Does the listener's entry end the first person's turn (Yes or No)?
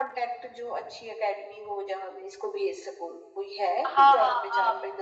Yes